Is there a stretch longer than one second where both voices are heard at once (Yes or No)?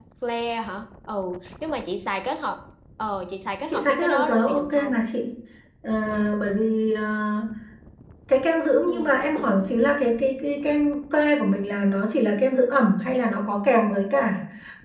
Yes